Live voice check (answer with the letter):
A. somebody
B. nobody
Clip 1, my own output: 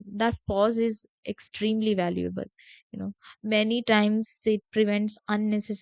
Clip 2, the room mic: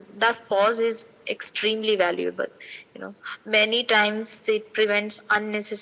B